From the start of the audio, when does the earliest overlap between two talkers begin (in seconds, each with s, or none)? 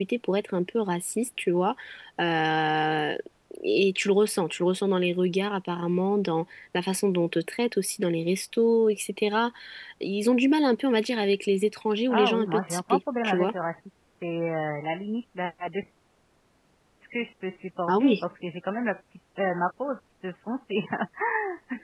12.1 s